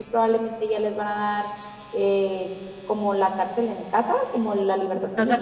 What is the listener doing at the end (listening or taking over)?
taking over